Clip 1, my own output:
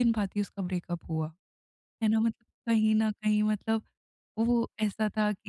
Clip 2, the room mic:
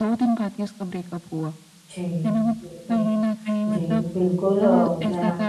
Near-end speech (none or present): present